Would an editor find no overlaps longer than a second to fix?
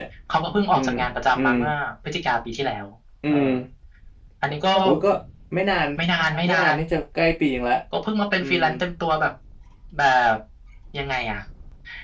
Yes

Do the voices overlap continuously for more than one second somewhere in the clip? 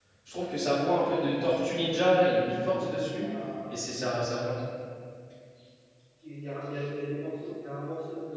No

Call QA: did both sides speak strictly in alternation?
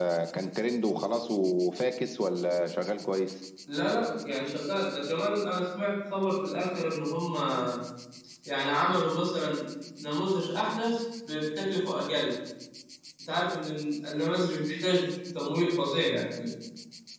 Yes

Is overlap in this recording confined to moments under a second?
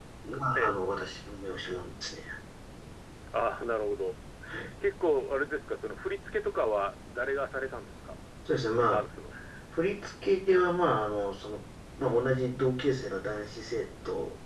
Yes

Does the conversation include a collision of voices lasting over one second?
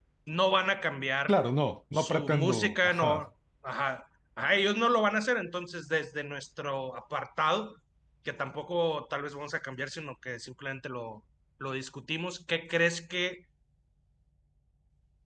Yes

